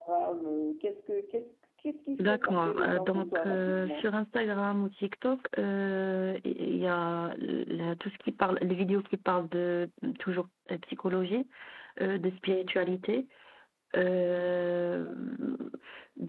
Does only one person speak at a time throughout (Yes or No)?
No